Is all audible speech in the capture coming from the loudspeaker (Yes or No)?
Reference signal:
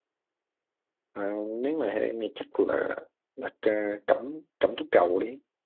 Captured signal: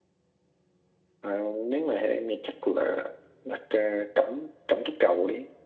Yes